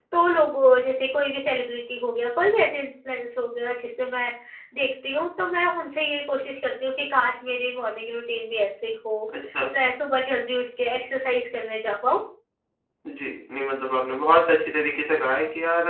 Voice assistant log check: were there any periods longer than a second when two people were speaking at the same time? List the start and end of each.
none

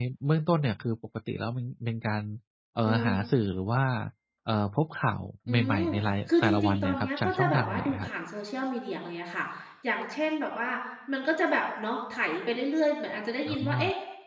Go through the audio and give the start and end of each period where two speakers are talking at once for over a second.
6.3-8.1

